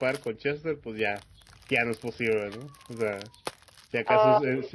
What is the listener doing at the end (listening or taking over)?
listening